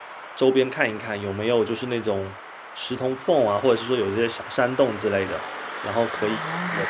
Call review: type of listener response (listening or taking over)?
listening